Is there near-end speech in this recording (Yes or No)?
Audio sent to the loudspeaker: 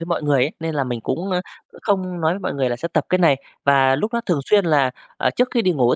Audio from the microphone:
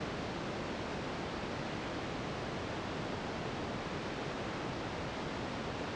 No